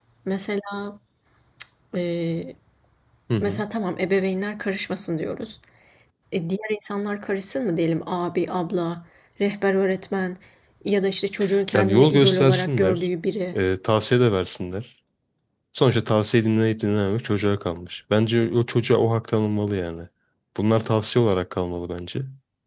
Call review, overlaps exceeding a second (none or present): present